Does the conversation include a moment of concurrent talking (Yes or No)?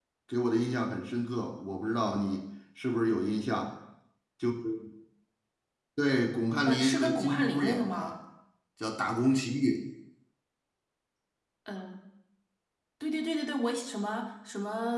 Yes